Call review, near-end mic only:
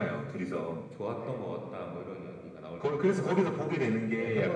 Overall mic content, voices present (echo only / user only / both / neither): both